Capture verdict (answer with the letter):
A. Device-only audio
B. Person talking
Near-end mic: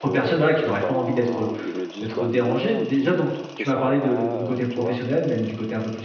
B